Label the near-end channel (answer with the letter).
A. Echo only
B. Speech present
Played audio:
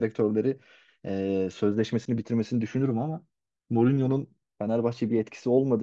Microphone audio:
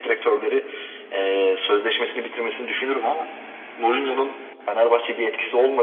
A